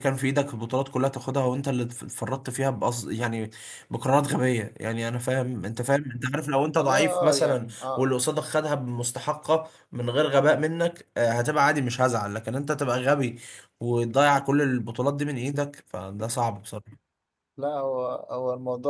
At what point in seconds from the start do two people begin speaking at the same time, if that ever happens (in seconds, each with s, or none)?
6.8 s